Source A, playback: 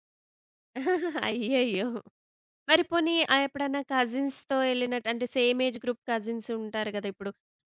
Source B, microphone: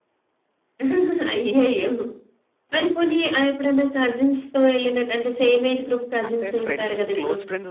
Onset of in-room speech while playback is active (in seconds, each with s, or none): 6.3 s